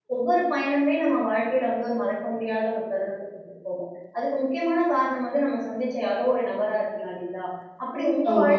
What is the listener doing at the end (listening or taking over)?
listening